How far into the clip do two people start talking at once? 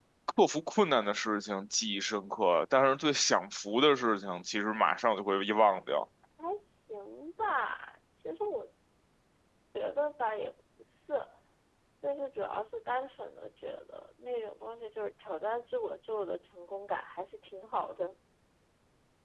none

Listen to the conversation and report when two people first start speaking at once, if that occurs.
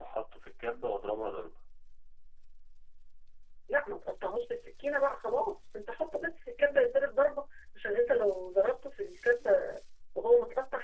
none

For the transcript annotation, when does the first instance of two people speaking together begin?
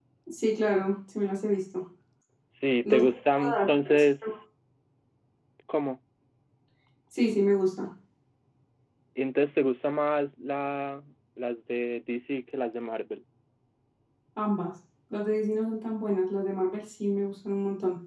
2.8 s

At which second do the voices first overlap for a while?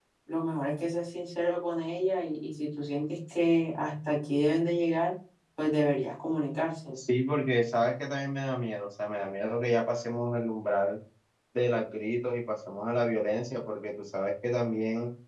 none

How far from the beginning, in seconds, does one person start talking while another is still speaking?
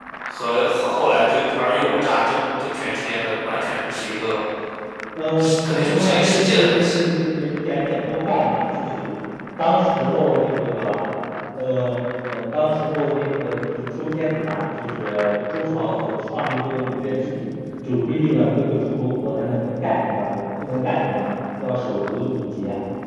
5.4 s

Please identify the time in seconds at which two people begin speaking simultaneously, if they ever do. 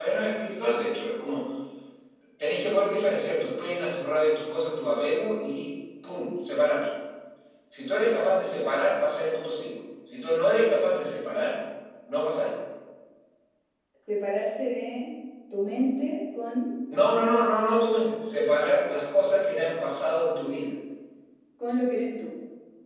none

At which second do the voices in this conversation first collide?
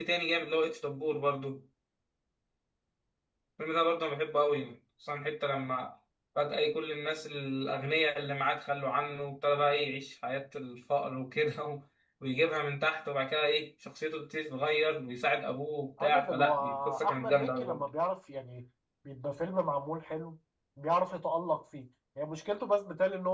16.0 s

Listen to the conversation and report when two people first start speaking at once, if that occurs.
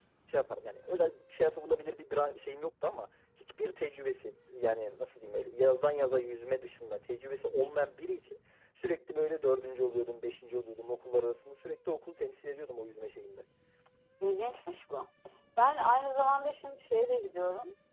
none

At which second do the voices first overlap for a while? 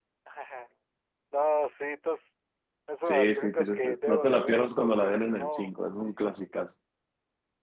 3.0 s

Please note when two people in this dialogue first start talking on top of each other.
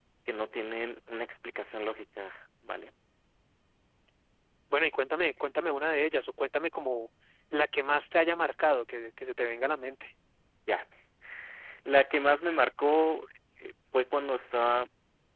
none

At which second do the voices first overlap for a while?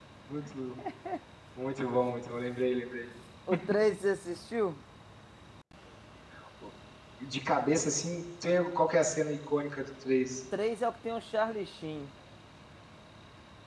none

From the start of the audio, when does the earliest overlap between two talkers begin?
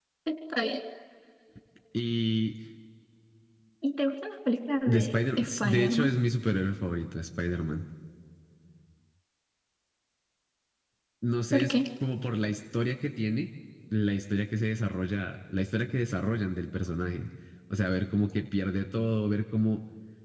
4.9 s

